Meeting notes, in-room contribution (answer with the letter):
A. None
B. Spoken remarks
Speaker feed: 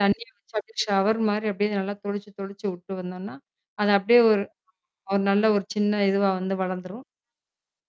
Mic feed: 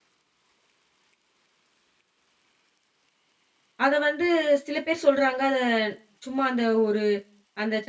B